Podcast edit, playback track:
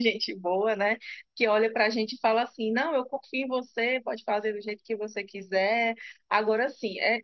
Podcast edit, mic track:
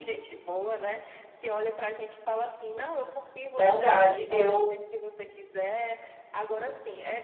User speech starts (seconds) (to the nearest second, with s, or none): 4 s